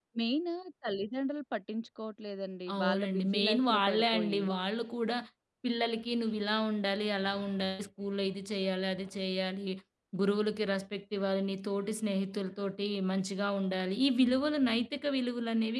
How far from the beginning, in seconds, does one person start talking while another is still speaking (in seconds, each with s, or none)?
2.7 s